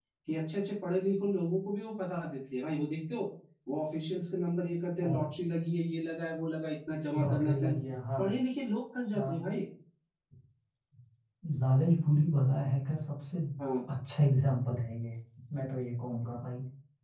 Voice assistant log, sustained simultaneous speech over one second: none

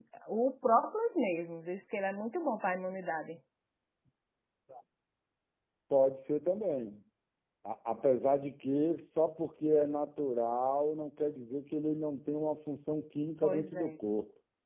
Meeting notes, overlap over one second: none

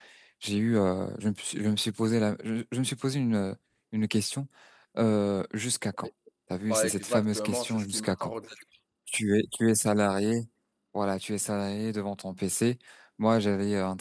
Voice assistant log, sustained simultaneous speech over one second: present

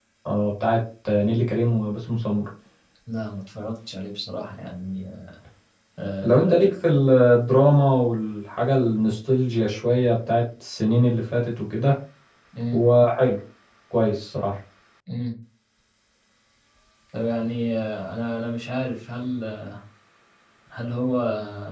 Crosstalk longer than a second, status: none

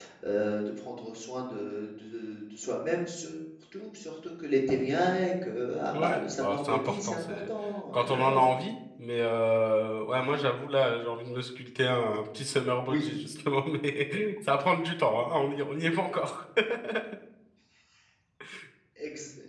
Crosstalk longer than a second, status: present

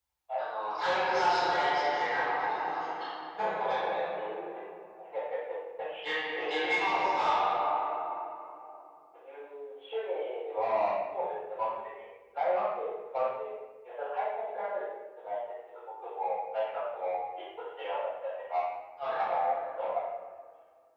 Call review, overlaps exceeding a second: none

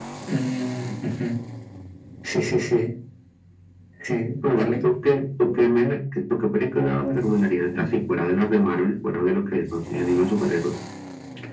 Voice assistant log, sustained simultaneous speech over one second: none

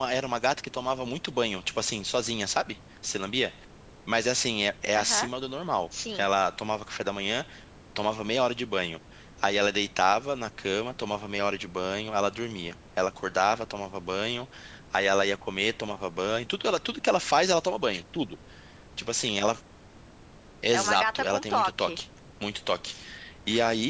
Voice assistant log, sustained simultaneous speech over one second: present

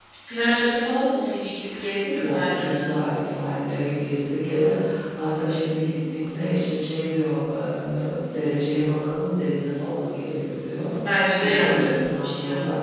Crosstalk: present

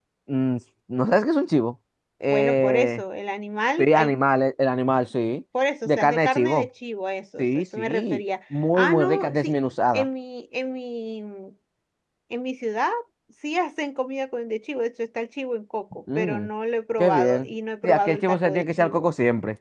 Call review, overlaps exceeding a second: present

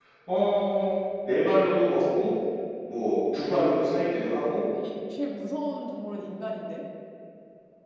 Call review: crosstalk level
none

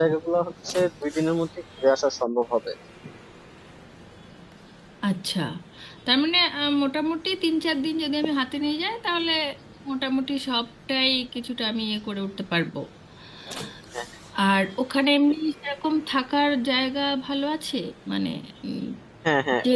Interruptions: none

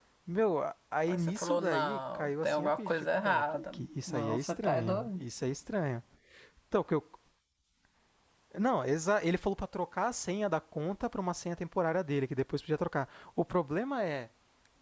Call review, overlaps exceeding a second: present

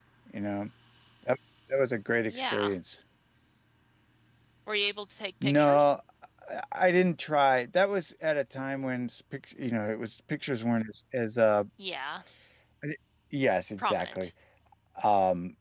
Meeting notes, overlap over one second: none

